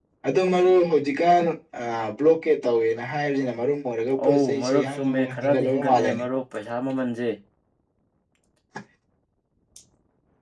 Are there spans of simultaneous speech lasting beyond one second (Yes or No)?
Yes